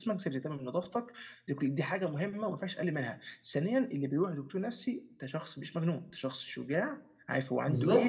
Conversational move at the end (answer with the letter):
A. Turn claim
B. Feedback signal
B